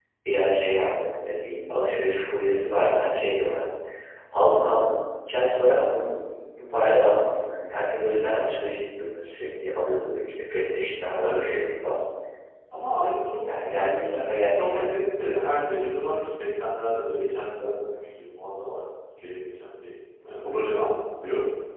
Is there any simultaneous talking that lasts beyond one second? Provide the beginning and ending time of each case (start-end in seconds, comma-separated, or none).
13.5-15.0